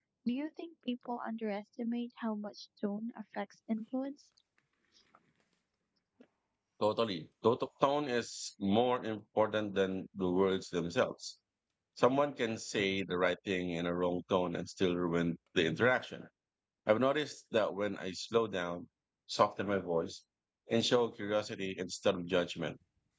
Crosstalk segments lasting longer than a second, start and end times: none

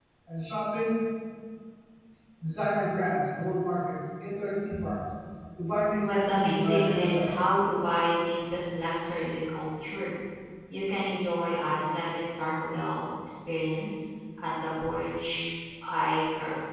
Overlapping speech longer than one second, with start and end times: 6.0-7.3

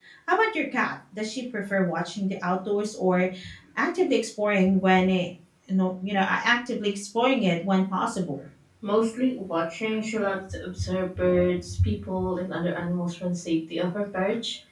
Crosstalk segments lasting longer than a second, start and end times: none

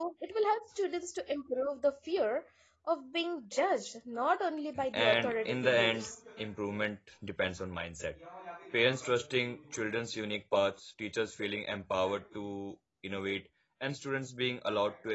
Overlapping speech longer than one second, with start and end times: 4.9-6.2

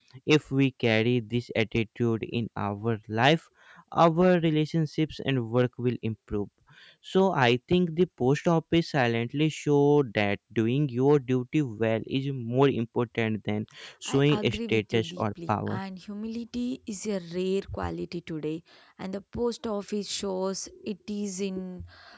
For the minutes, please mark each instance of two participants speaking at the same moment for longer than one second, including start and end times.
14.1-15.8

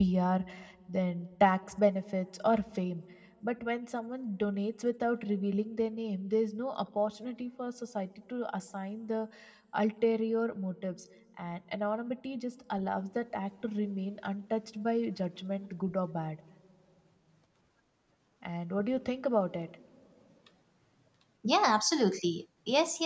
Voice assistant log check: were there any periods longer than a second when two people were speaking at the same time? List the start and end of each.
none

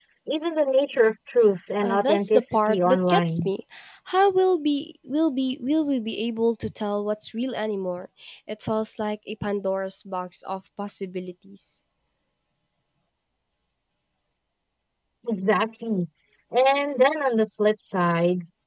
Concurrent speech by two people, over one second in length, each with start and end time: 1.8-3.5

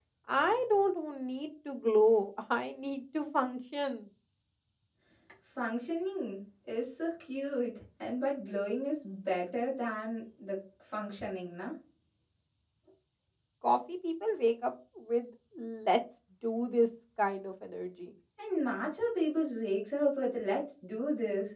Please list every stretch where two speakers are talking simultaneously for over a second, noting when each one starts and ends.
none

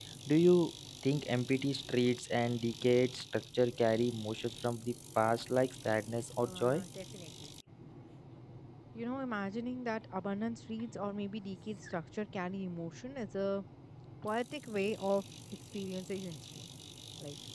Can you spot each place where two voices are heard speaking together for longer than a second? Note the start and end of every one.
none

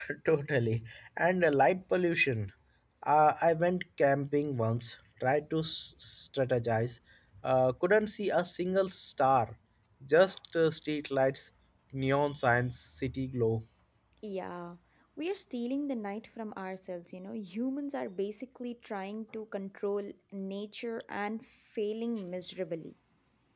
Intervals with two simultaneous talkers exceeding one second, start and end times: none

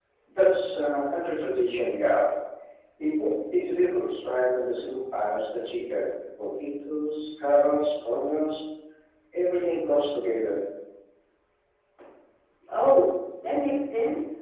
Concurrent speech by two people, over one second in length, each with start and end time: none

